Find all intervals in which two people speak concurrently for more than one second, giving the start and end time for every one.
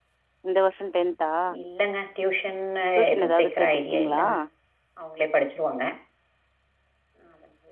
3.0-4.2

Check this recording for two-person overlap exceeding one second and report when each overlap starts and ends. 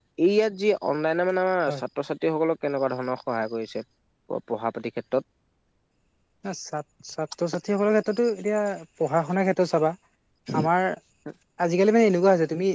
none

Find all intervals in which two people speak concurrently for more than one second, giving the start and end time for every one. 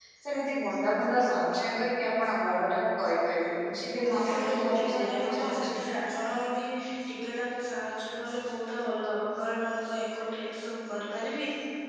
3.9-5.8

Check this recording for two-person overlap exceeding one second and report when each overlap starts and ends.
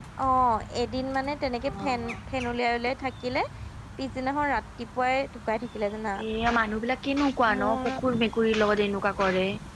none

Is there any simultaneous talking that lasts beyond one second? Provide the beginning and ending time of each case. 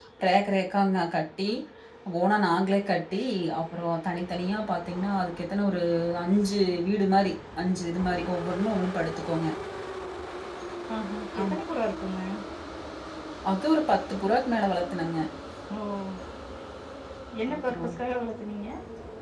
none

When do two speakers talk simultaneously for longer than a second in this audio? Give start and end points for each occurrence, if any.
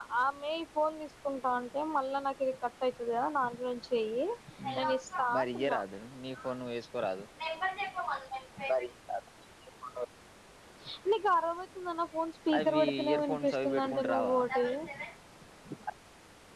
12.6-14.4

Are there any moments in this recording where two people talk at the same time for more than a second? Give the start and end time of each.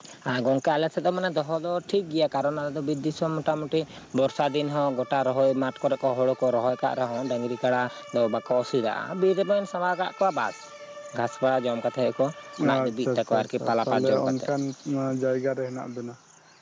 12.8-14.3

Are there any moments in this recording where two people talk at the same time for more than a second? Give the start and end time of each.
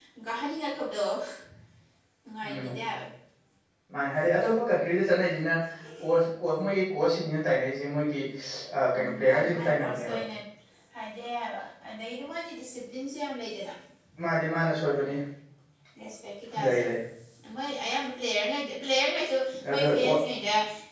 8.9-10.2

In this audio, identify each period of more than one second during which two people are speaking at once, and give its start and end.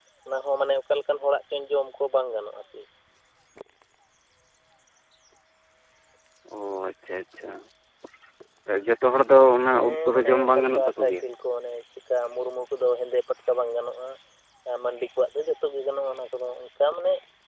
9.7-11.1

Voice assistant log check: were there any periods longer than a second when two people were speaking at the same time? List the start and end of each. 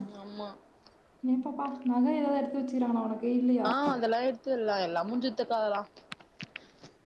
none

